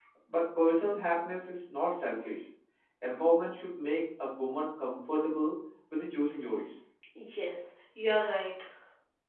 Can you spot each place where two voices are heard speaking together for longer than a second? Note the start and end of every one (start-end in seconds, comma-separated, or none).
none